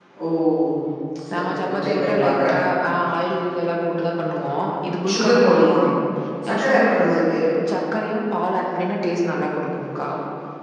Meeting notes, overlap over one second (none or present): present